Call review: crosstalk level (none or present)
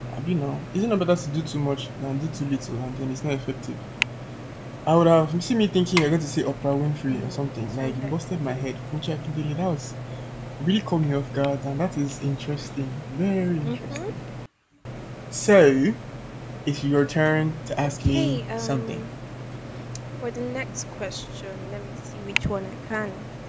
present